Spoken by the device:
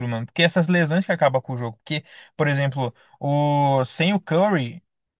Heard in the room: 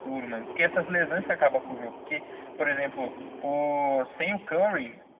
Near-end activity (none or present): none